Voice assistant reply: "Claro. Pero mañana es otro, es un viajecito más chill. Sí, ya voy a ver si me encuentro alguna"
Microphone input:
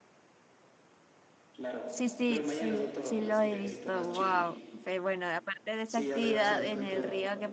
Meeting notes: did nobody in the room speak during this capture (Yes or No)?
No